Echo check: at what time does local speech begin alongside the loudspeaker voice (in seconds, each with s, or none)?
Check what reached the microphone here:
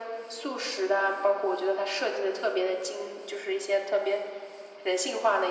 none